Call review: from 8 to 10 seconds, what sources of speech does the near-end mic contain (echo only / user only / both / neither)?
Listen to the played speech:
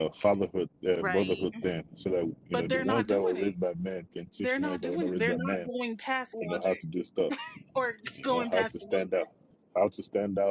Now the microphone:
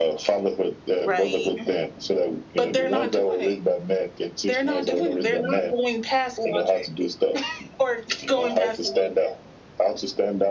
echo only